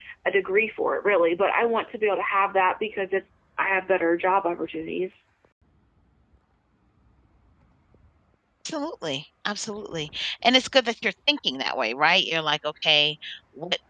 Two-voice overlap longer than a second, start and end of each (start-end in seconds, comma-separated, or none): none